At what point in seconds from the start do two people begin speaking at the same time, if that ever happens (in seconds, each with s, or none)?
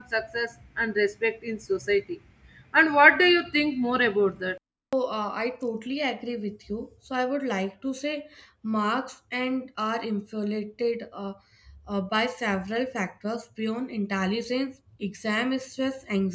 none